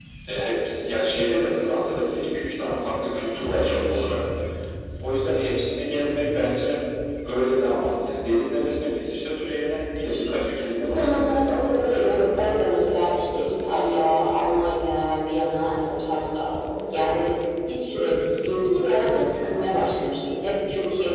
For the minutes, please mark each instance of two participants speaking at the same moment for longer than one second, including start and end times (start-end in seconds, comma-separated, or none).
10.8-12.4